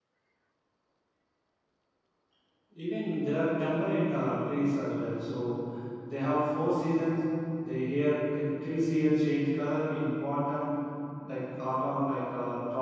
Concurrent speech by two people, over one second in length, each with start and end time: none

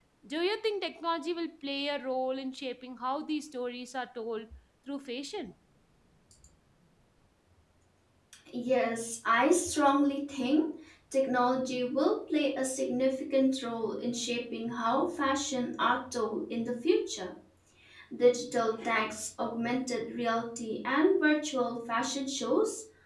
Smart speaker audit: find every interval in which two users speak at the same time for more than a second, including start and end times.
none

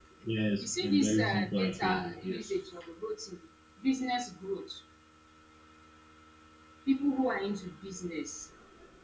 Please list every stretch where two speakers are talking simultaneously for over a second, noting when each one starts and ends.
0.6-2.5

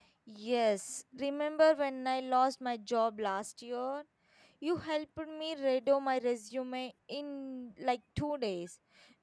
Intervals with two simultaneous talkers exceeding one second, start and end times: none

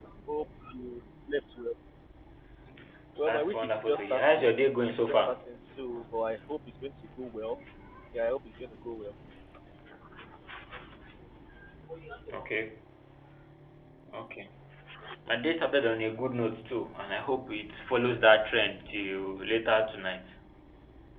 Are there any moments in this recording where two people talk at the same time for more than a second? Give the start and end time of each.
3.2-5.4

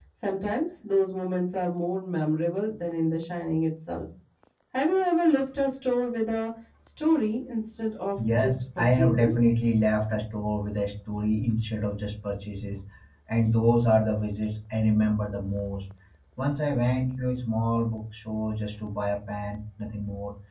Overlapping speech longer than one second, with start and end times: 8.2-9.5

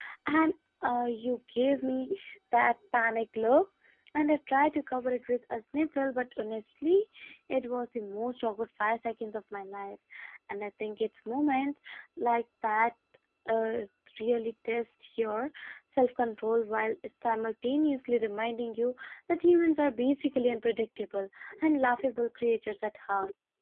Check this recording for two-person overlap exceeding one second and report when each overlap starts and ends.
none

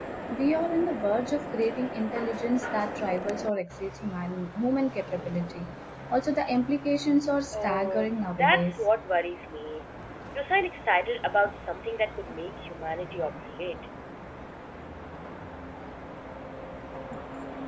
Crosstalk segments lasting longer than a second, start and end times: 7.5-8.8

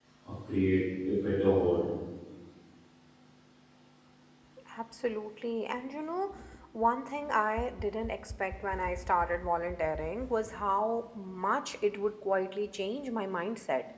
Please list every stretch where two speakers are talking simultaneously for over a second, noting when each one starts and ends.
none

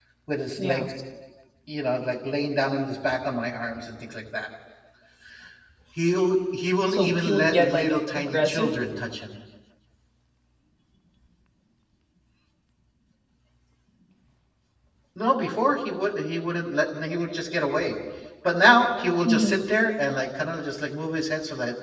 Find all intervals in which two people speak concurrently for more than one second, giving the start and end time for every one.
6.9-8.7

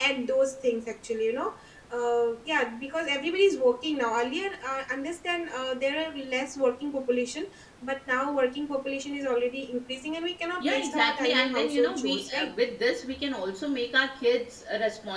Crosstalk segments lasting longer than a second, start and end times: 10.6-12.5

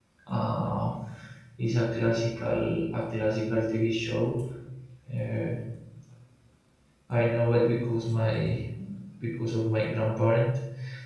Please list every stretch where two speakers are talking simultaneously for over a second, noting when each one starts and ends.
none

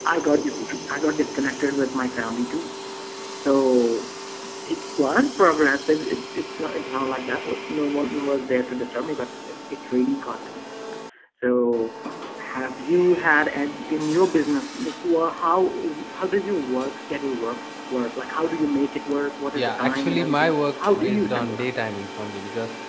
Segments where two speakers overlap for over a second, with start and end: 19.5-21.7

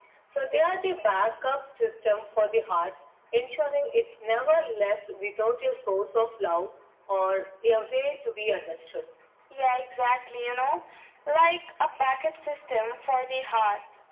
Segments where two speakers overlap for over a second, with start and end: none

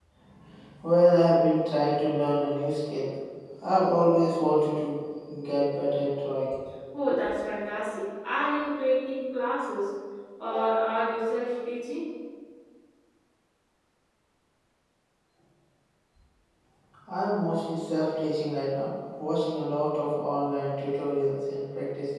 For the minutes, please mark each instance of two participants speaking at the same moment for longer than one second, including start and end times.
none

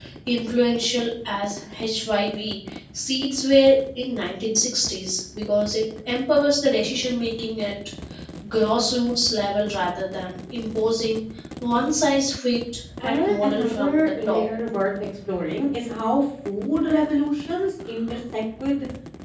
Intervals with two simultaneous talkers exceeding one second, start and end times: 13.0-14.5

